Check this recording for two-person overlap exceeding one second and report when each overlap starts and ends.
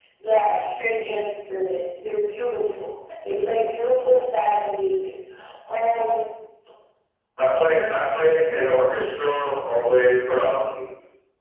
none

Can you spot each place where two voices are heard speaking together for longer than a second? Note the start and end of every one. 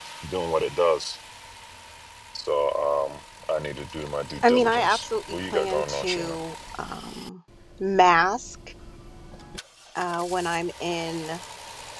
4.4-6.4

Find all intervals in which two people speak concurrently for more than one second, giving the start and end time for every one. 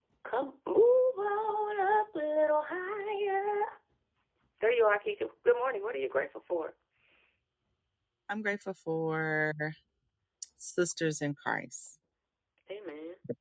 none

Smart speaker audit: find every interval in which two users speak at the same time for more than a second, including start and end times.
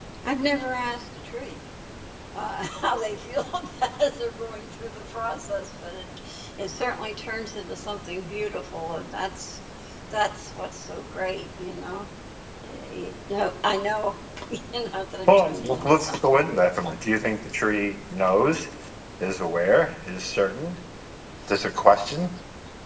15.3-16.9

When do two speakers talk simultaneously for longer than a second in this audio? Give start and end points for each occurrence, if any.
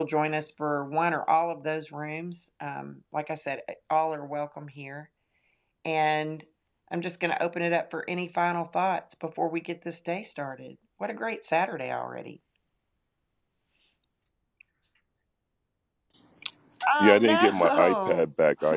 17.0-18.3

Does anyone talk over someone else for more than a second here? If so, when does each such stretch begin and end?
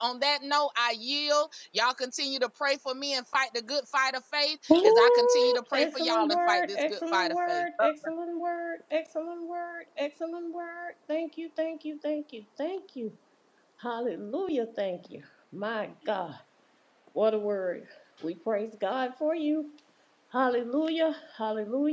4.8-7.6

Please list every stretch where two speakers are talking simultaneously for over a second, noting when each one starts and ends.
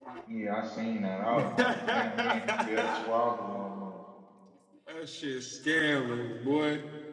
1.6-3.2

